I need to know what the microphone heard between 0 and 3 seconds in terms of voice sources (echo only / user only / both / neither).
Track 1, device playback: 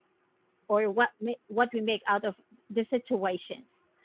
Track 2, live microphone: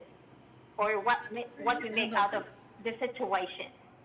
both